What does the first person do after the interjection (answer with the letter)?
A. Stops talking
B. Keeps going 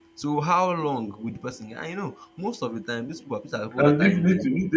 A